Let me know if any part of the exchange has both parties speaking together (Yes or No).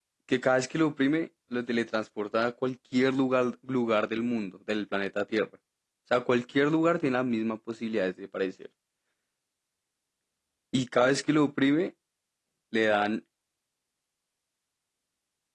No